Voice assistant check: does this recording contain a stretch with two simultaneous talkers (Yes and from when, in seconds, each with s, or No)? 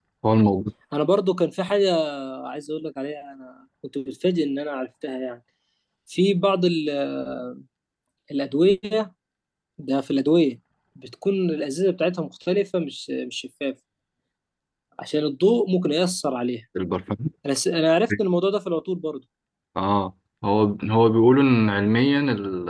No